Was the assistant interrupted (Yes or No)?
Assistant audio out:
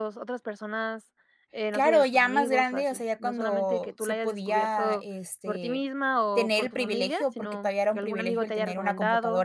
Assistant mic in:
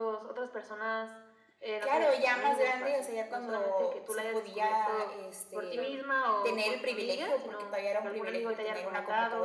Yes